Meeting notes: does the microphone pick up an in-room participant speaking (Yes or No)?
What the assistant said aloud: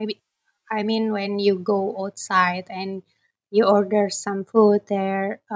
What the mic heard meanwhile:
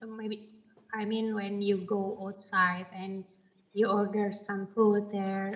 No